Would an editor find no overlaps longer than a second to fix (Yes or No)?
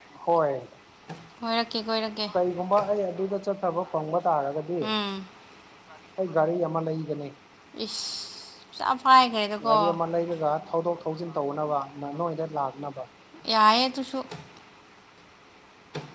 Yes